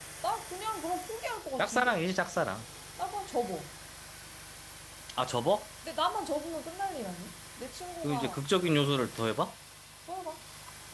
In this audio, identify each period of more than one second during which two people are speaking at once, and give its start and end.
none

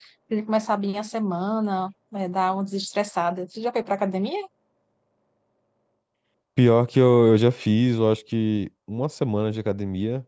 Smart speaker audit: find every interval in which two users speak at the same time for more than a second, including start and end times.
none

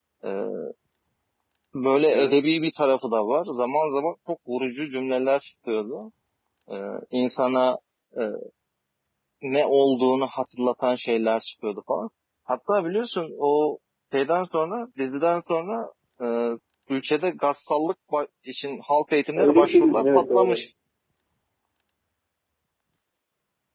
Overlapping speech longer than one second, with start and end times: 19.4-20.6

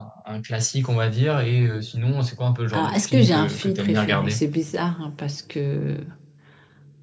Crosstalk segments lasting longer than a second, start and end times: 2.7-4.4

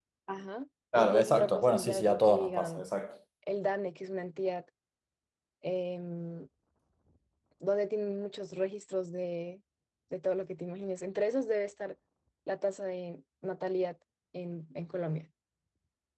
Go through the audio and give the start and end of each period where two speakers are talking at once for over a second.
0.9-2.9

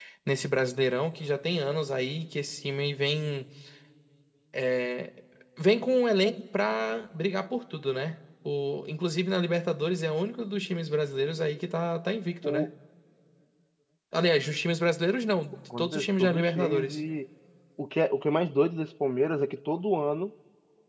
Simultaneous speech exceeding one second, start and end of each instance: 15.8-17.0

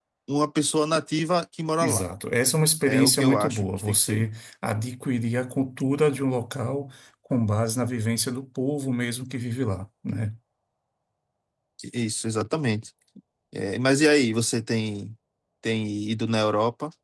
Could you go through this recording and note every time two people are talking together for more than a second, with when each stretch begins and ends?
2.8-4.3

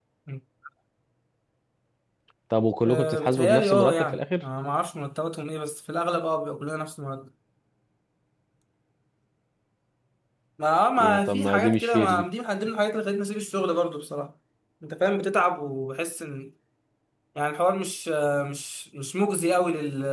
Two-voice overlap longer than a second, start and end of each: 2.8-4.4, 11.0-12.2

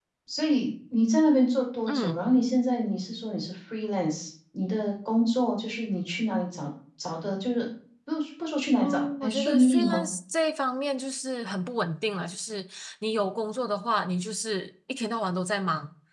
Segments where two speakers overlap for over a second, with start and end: 8.8-10.1

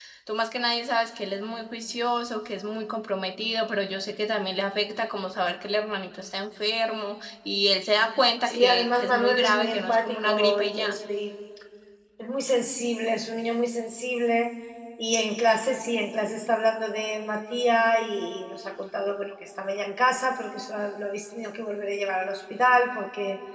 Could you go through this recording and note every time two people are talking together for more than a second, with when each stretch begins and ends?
8.4-11.0

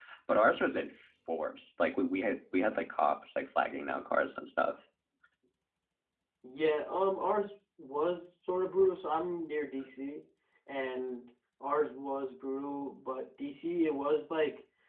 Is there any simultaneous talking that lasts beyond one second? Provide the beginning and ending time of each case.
none

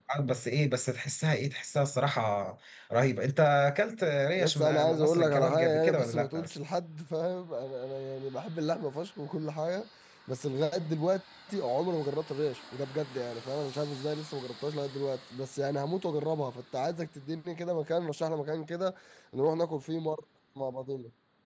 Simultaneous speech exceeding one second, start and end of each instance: 4.4-6.4

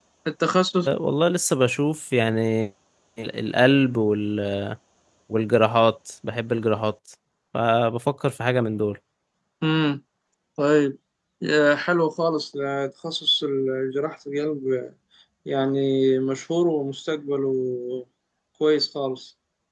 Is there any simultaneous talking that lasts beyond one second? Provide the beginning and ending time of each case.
none

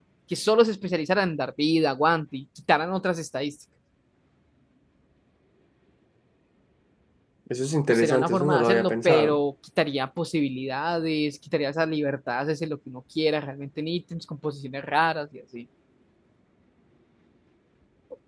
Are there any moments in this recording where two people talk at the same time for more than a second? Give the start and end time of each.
7.9-9.4

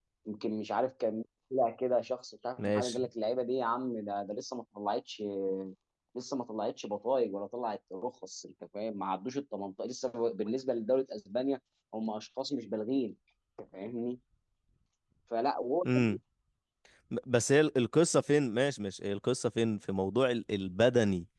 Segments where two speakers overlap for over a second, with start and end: none

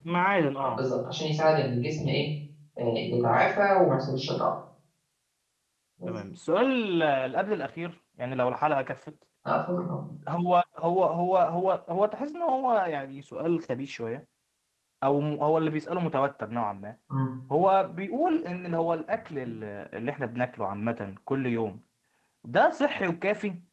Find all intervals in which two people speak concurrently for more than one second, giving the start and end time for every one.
none

